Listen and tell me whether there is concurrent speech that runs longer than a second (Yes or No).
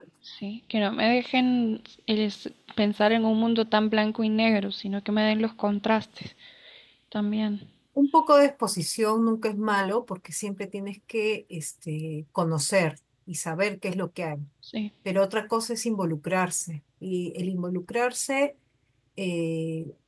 No